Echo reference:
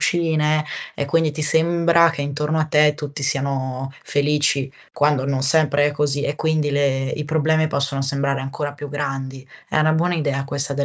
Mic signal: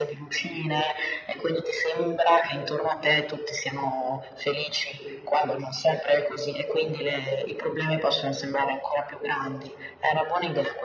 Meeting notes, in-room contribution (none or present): none